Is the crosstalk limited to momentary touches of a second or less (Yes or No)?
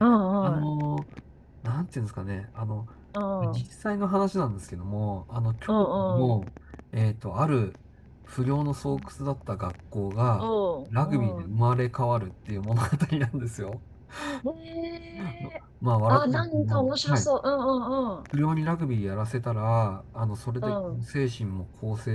No